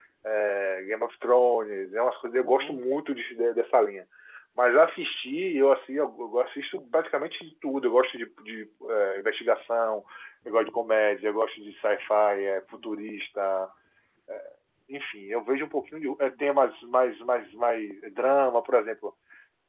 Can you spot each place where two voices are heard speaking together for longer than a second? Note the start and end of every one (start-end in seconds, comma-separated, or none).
none